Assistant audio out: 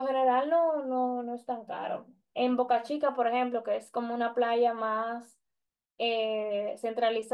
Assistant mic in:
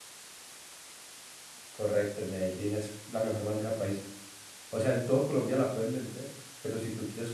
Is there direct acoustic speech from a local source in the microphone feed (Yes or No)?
Yes